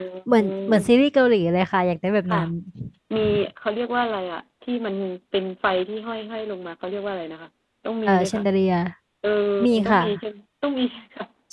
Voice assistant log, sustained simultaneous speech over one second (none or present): none